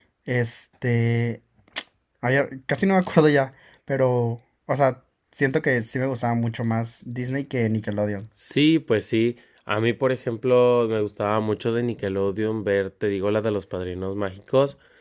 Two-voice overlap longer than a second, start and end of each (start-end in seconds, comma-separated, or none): none